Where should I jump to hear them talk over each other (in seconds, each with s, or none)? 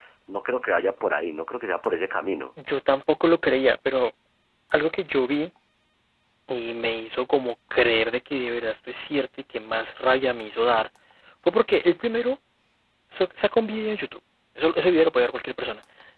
none